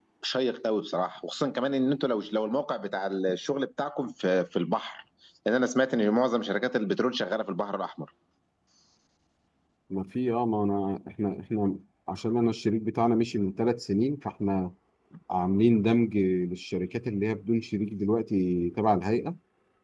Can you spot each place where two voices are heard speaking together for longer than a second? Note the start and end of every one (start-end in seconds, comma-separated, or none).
none